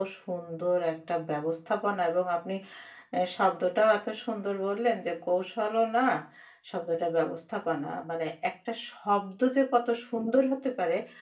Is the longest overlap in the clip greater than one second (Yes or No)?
No